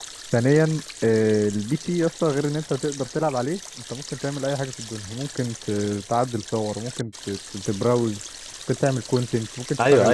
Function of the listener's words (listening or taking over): taking over